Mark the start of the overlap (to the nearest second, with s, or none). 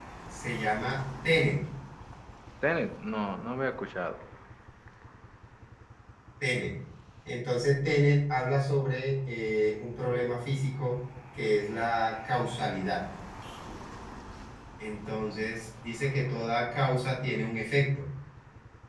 none